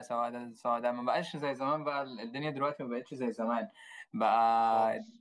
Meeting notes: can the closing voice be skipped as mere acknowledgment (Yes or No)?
Yes